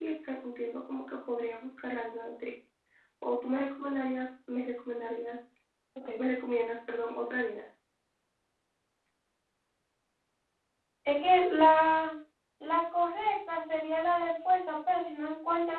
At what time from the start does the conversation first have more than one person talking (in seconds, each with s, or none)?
none